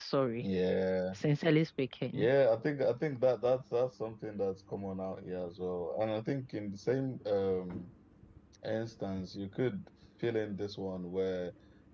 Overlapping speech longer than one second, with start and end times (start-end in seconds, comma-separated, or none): none